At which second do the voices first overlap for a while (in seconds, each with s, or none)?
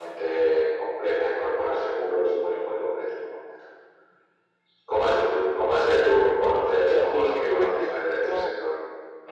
6.9 s